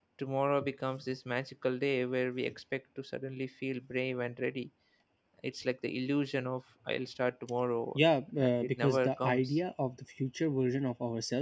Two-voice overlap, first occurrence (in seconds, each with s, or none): 8.4 s